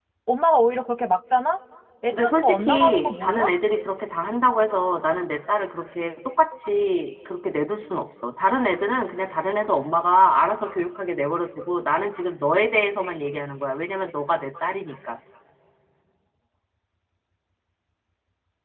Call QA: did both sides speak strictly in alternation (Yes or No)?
No